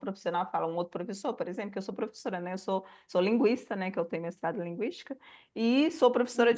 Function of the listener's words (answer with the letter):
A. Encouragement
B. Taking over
A